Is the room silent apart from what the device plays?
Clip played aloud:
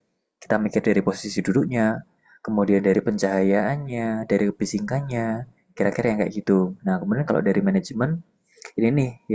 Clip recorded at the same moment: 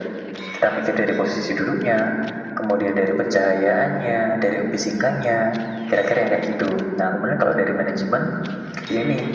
Yes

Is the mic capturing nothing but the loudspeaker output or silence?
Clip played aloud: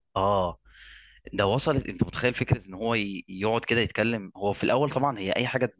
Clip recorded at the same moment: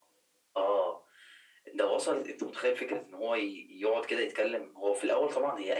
Yes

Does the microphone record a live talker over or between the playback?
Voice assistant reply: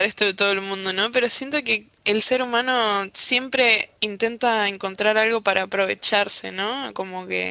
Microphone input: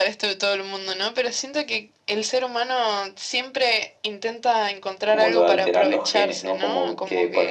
Yes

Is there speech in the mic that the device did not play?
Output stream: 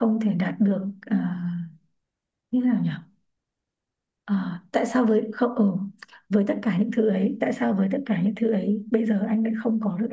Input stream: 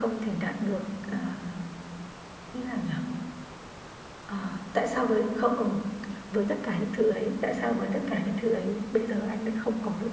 No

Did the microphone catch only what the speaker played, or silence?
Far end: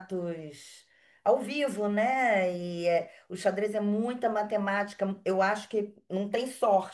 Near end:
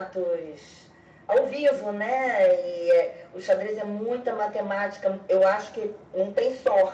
Yes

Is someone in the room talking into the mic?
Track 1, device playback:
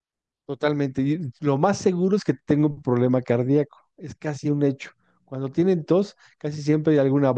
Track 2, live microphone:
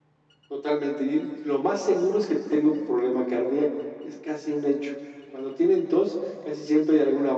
No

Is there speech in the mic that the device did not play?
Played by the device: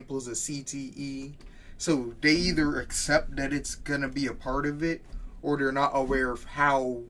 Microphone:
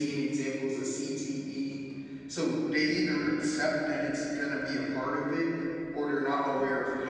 No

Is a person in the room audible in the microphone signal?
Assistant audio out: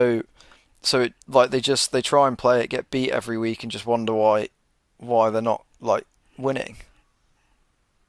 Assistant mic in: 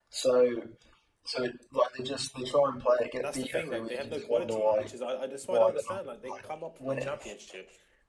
Yes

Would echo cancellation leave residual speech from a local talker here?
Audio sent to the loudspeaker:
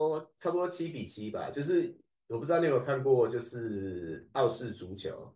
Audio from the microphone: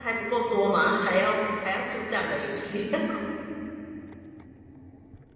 Yes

